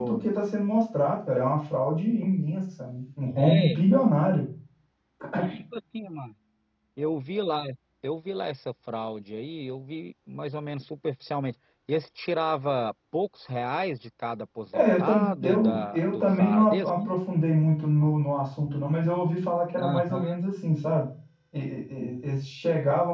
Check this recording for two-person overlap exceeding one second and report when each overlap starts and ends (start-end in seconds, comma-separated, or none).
14.7-16.9